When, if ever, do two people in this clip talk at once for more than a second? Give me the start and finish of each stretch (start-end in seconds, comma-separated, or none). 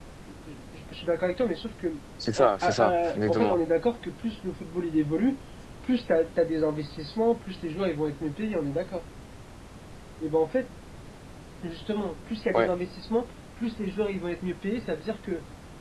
2.4-3.6